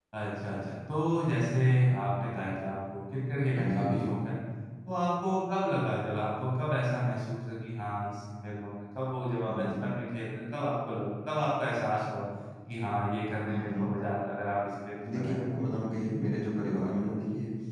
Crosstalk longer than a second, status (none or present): none